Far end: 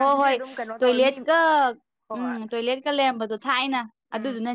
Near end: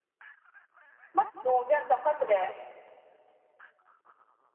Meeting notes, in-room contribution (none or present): present